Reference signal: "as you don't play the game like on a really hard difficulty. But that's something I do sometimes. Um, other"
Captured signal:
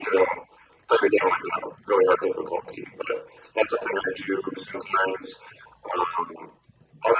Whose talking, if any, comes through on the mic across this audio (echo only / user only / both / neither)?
echo only